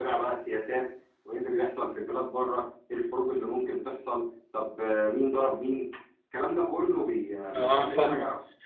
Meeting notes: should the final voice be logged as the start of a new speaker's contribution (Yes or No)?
Yes